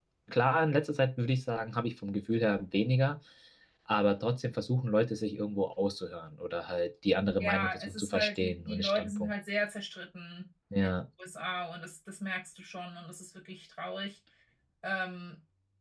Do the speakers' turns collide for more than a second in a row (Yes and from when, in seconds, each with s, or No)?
Yes, from 7.4 s